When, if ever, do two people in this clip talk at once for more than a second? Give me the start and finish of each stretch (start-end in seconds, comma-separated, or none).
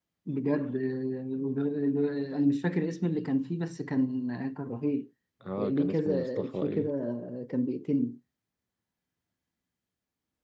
5.6-6.9